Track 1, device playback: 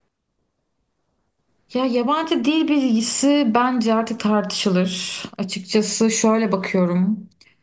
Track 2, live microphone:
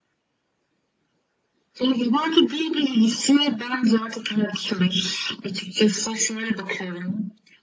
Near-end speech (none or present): none